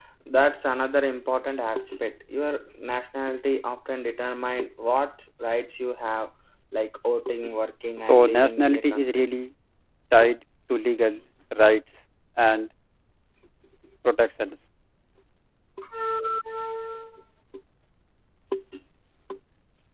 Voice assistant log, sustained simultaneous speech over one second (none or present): present